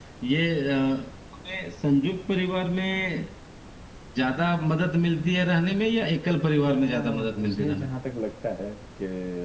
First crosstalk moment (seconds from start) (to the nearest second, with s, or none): 7 s